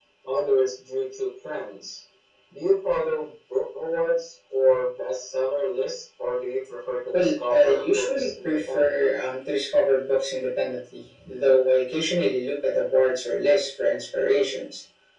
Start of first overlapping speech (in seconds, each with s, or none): 7.1 s